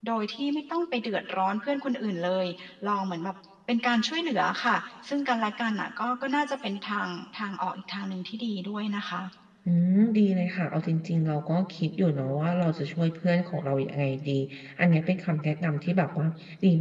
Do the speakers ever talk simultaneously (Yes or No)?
No